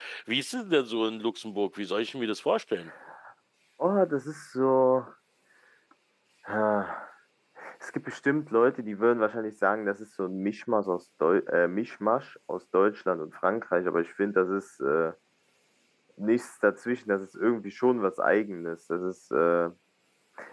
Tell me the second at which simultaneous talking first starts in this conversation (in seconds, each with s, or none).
none